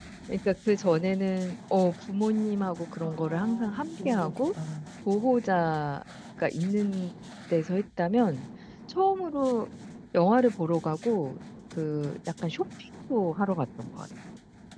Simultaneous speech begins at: 3 s

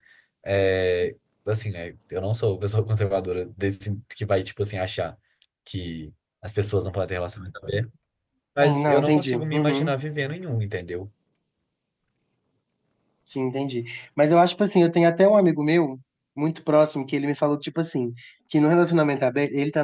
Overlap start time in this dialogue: 9 s

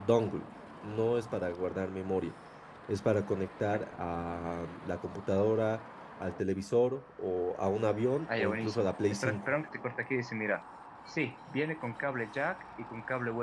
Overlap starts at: 8 s

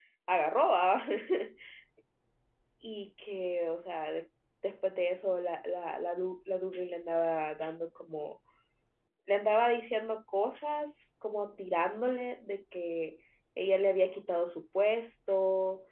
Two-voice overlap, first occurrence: none

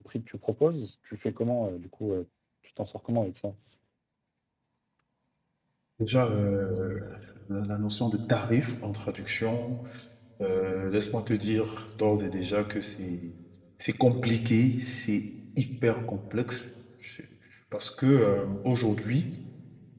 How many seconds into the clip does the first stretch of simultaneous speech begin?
none

